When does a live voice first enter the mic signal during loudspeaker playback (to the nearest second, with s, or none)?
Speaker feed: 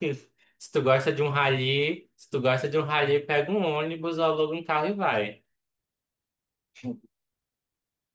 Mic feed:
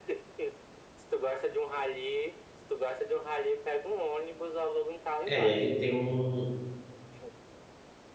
5 s